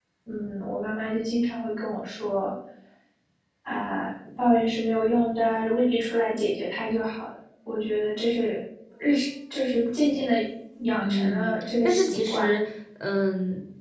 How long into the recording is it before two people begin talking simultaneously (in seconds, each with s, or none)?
11.0 s